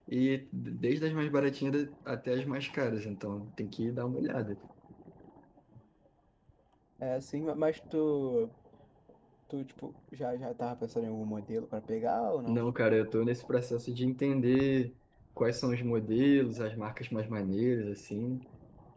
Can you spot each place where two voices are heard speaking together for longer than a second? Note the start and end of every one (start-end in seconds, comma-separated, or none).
none